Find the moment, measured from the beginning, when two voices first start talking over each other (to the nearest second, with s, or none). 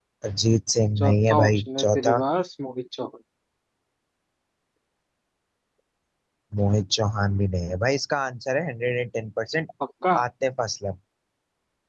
1 s